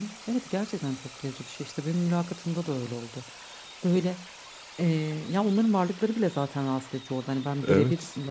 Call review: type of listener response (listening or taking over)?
listening